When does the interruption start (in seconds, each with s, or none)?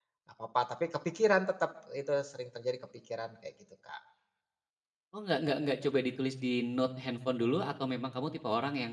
none